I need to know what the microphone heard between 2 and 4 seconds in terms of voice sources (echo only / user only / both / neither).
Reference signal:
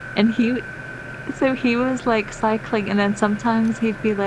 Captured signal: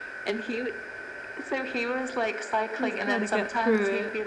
both